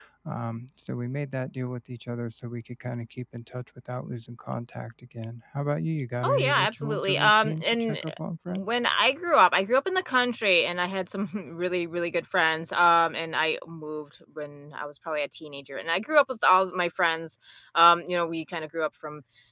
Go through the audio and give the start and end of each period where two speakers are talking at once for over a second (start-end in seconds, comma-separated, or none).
6.2-8.0